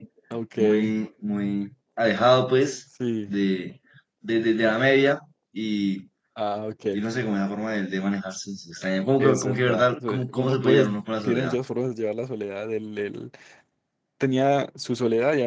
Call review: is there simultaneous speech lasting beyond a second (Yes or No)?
Yes